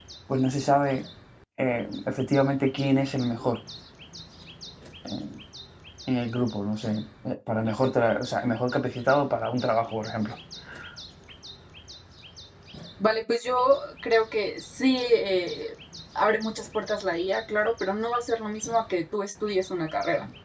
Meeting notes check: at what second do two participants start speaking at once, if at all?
none

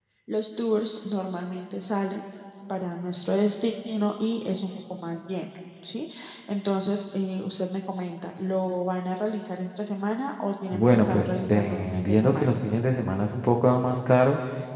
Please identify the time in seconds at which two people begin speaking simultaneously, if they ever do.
11 s

